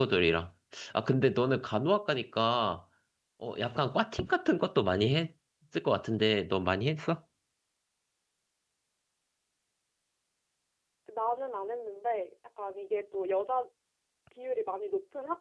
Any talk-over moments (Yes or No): No